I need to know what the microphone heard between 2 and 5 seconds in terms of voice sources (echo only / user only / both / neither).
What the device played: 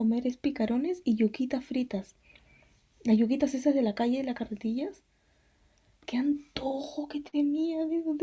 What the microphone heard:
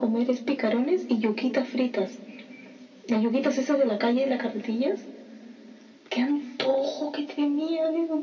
echo only